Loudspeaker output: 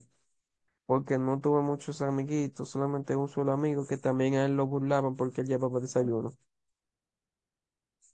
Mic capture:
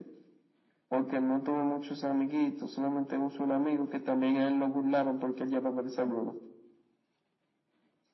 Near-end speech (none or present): none